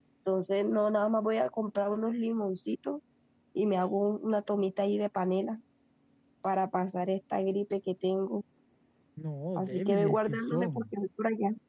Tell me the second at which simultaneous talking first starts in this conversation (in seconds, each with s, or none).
9.6 s